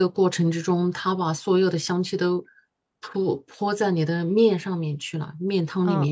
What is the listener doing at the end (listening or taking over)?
taking over